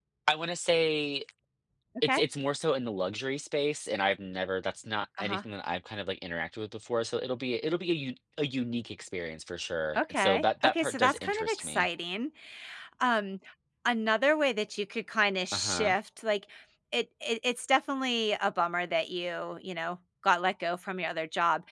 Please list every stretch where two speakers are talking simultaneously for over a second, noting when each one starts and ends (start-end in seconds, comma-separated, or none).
10.0-11.9